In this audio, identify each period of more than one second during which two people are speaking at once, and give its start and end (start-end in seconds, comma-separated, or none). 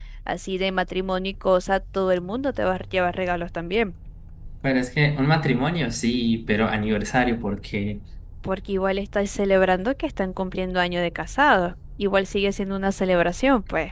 none